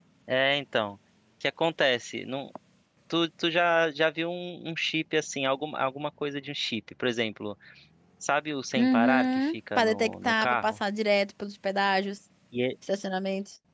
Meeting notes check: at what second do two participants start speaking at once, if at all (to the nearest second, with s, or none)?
9 s